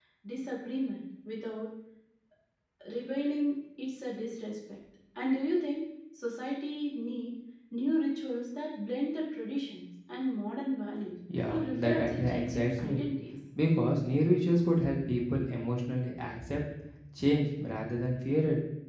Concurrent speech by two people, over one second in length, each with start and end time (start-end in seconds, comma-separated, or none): 11.5-13.1